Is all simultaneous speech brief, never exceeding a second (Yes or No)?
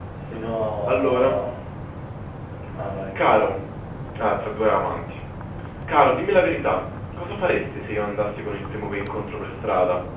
Yes